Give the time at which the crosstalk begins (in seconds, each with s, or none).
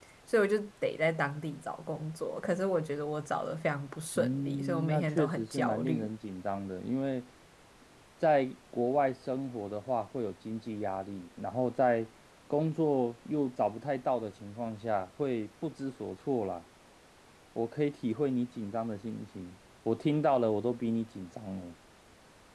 4.2 s